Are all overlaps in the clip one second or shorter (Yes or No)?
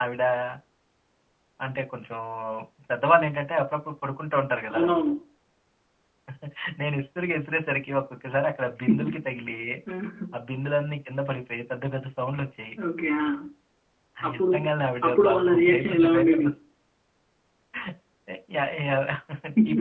No